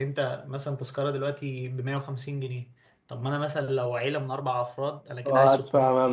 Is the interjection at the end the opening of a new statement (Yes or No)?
Yes